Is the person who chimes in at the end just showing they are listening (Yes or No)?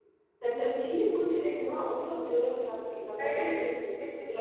Yes